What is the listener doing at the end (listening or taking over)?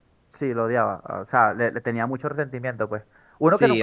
listening